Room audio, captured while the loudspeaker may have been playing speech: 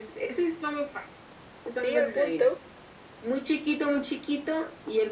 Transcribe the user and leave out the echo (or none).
Sí, al punto.